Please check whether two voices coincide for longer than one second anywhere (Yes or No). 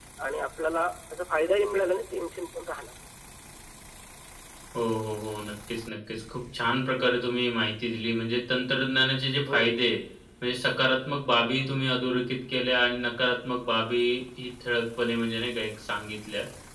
No